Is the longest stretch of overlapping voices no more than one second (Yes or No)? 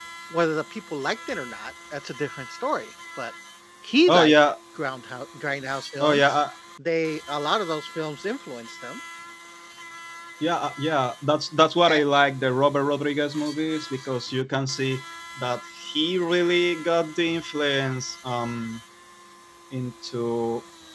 Yes